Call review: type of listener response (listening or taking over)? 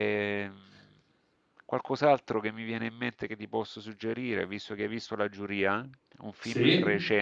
listening